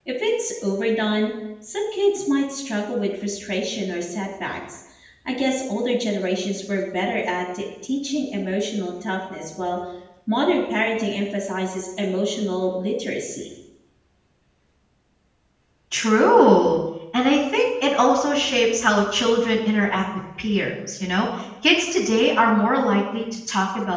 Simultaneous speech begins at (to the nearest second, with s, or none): none